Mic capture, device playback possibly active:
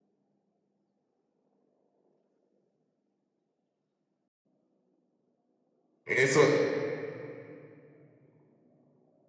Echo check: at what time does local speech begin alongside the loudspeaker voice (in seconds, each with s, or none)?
6.0 s